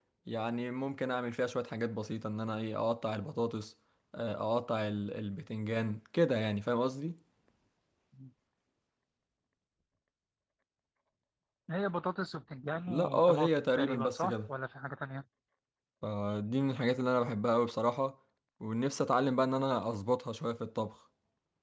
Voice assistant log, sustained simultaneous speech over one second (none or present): present